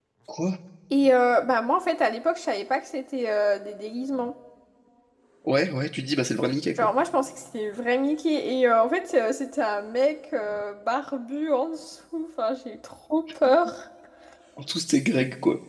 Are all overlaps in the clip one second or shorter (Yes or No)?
Yes